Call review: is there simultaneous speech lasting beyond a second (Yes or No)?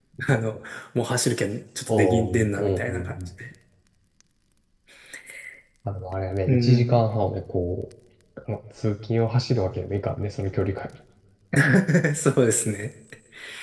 Yes